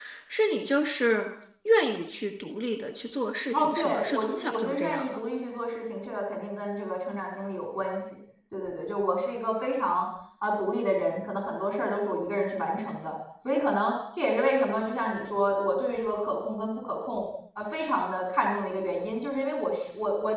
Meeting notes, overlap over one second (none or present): present